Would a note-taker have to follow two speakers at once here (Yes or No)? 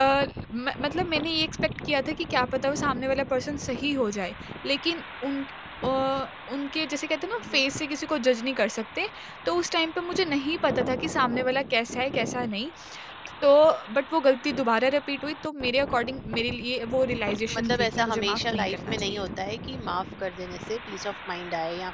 Yes